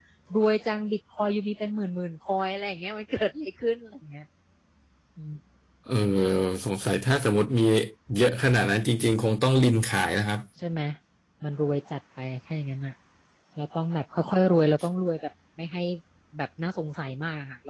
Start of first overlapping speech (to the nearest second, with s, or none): none